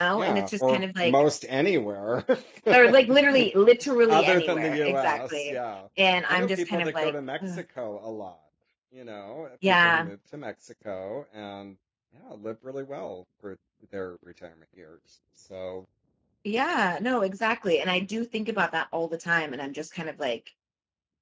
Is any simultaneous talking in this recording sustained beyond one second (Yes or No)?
Yes